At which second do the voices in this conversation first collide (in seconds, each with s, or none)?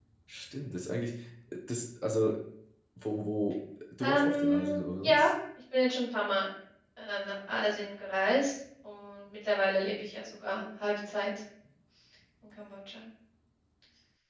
4.0 s